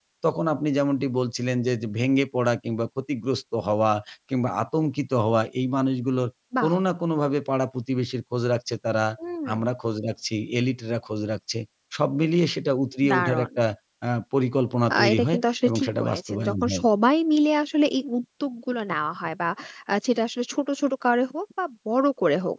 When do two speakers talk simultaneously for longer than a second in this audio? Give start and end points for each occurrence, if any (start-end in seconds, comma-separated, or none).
14.9-16.8